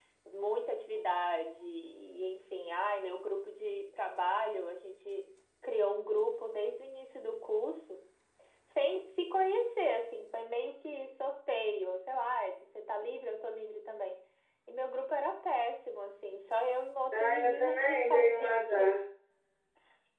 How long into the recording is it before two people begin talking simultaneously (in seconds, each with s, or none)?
17.1 s